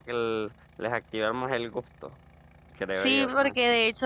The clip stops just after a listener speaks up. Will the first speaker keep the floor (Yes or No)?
No